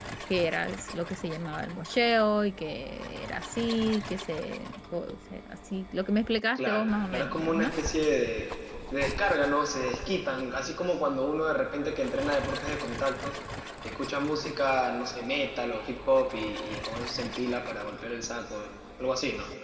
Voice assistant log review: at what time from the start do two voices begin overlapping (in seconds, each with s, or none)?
6.6 s